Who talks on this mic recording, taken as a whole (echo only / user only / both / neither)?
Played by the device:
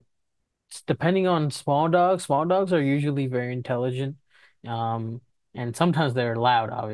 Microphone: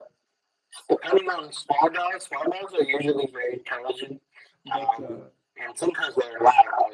both